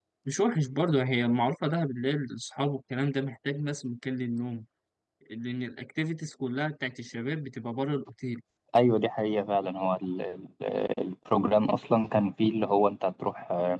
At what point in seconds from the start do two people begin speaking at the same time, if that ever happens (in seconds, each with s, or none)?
none